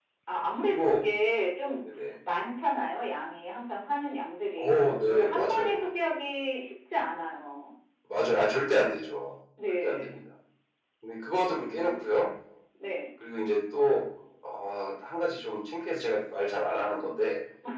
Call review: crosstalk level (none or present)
present